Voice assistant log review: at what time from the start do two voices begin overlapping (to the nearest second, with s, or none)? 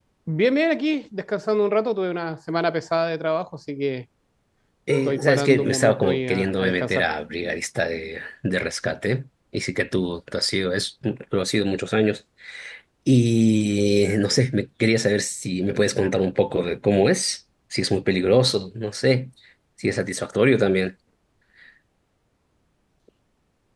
5 s